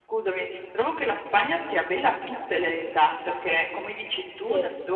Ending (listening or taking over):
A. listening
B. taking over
A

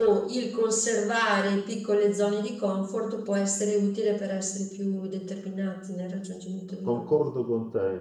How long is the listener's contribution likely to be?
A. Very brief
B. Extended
B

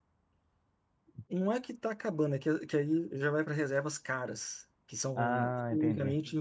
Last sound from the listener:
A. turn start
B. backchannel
B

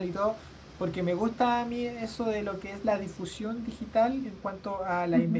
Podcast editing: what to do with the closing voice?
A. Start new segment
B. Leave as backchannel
B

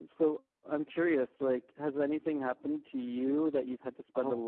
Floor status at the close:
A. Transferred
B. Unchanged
A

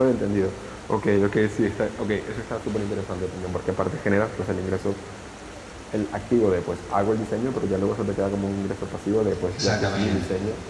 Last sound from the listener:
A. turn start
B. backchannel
A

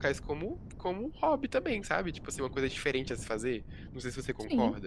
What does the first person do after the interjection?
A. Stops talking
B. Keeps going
A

